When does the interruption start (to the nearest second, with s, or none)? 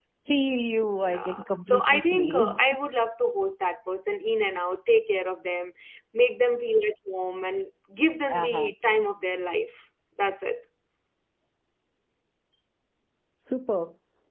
1 s